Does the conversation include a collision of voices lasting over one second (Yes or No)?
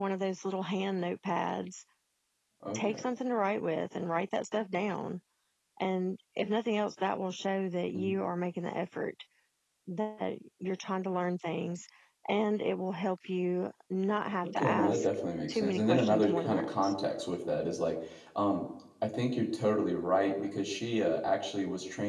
Yes